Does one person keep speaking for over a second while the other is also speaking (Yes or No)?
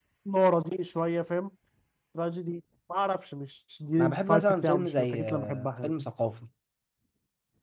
Yes